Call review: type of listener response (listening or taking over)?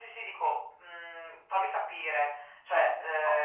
taking over